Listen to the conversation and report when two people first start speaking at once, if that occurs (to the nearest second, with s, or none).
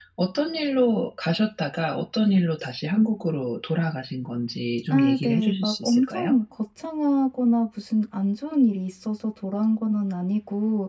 5 s